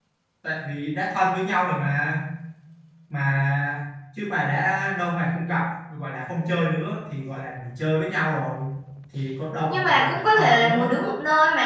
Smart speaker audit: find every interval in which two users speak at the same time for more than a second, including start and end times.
9.7-10.9

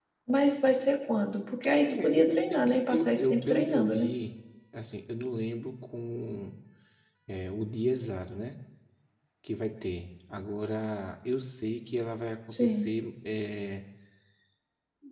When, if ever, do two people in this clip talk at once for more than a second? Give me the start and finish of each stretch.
1.9-4.1

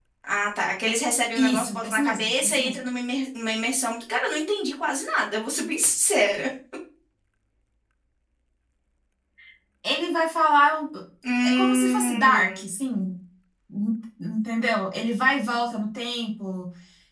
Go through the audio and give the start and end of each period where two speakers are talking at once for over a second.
1.4-2.8, 11.4-12.6

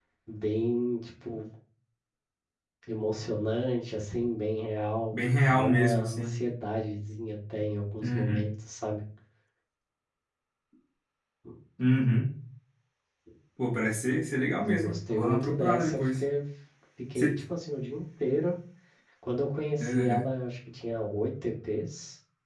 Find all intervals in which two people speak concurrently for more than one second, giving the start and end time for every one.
5.1-6.3, 14.6-16.2

